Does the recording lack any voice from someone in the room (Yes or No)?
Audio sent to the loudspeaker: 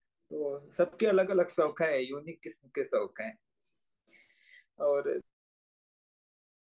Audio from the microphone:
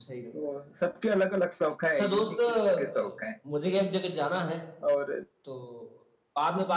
No